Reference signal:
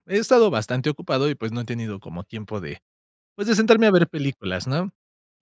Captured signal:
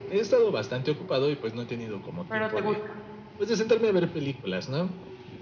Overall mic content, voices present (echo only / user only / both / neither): both